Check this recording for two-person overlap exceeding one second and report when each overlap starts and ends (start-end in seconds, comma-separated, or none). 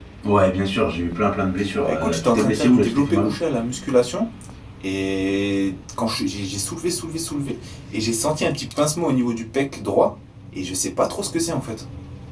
1.8-3.3